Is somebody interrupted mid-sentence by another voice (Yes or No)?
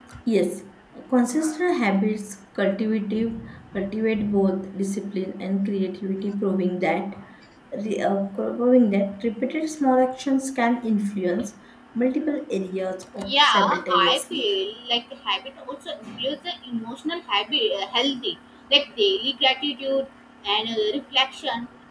Yes